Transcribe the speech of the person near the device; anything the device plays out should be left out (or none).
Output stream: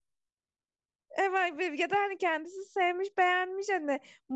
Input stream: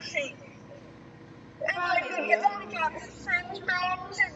Devam ediyor.